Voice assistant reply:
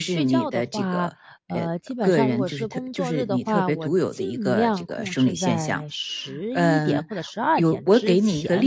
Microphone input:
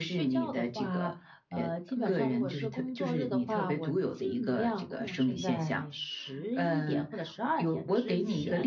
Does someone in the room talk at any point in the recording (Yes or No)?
Yes